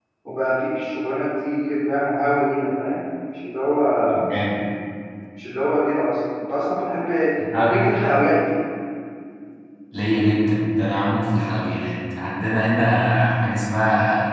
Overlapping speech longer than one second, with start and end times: none

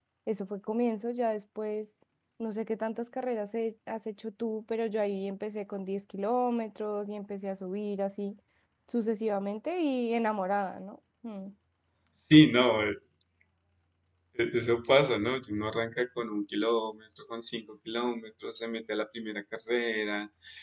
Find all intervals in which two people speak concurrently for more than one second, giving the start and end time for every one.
none

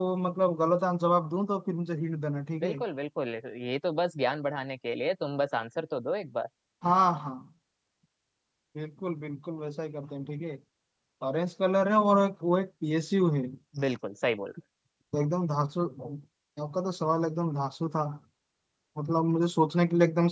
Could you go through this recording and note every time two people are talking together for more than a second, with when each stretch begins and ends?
none

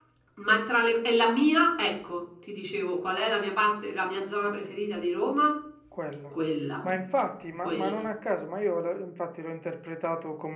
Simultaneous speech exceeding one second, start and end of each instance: none

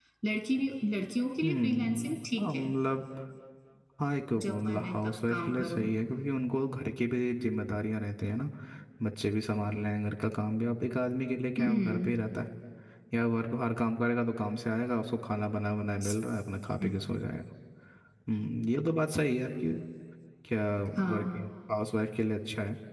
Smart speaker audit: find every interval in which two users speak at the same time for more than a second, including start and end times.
1.4-2.7, 4.4-5.8

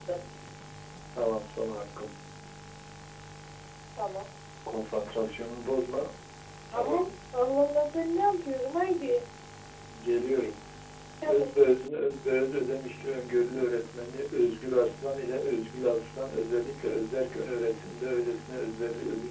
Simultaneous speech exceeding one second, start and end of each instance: none

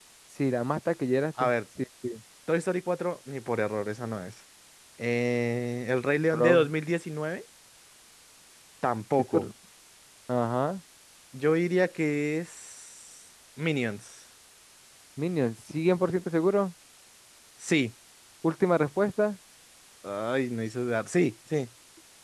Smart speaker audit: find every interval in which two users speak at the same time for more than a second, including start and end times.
none

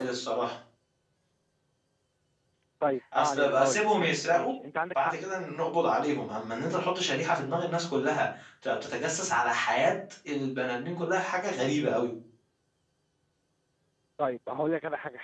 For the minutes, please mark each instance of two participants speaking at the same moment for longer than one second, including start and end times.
3.1-4.5

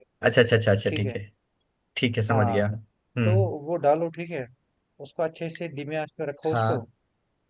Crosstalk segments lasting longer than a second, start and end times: none

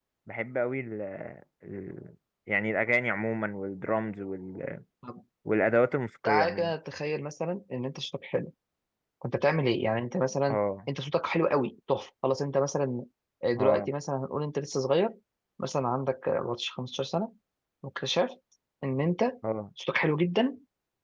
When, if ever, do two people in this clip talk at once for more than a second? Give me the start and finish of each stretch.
none

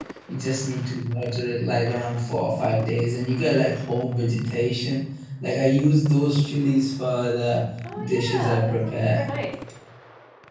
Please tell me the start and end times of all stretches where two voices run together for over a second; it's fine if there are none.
8.0-9.2

